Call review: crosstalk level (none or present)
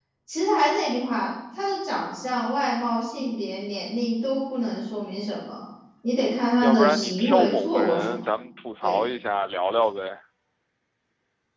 present